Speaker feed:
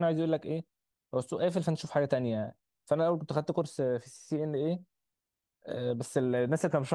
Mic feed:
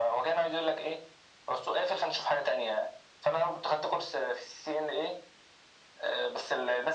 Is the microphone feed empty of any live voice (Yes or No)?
Yes